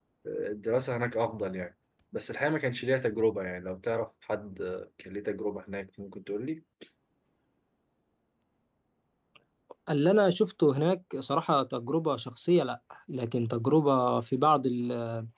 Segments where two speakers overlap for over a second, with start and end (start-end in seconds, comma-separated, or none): none